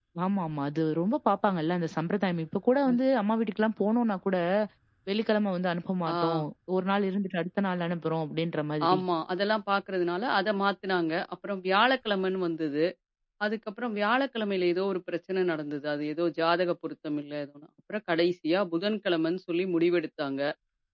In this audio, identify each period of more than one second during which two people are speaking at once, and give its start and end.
none

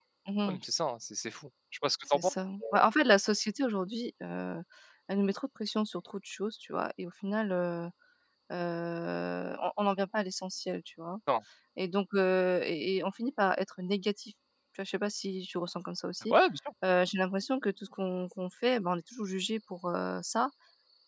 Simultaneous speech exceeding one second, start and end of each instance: none

